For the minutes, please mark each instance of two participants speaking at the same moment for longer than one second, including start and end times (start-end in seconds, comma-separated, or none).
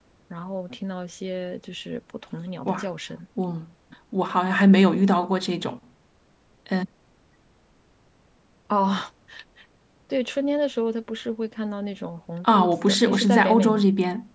12.4-13.8